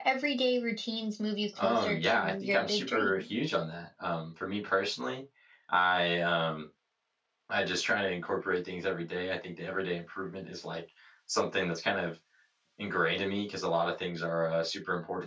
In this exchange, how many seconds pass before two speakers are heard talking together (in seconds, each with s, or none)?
1.6 s